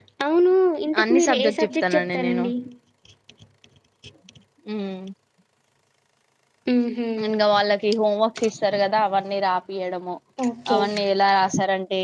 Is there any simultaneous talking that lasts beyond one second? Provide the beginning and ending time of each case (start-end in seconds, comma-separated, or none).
1.0-2.4